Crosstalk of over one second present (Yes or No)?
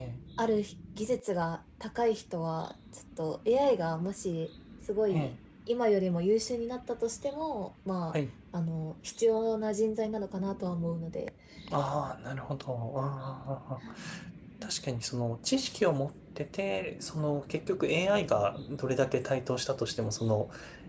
No